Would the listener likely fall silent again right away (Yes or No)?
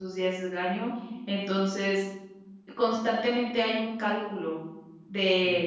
Yes